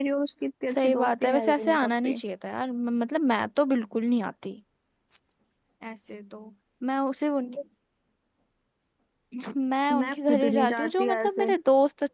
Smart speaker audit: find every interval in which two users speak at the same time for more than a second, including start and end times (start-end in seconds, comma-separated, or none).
0.7-2.2, 9.9-11.5